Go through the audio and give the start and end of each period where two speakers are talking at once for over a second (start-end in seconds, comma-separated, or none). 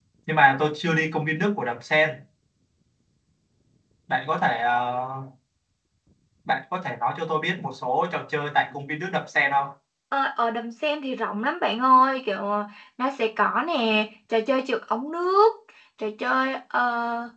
none